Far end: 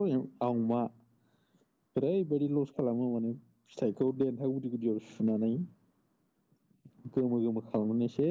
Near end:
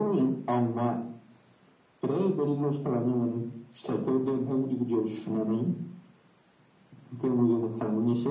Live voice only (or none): none